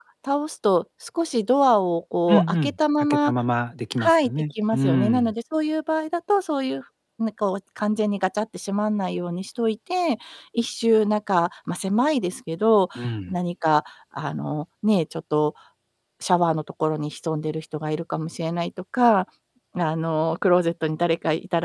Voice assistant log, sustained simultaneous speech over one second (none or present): present